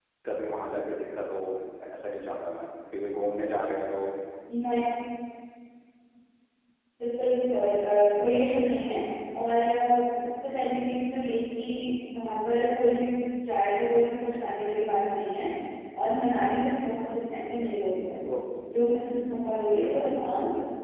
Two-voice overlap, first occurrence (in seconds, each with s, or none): none